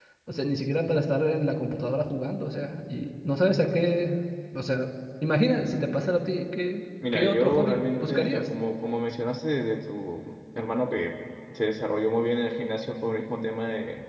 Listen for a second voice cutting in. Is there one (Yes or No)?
Yes